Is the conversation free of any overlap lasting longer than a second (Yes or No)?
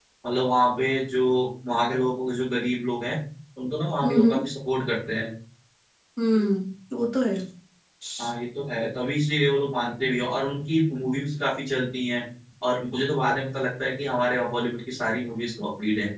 Yes